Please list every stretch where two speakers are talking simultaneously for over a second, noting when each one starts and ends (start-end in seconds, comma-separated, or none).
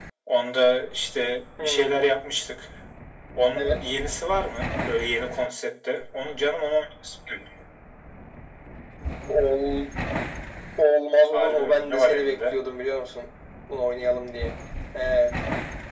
11.3-12.6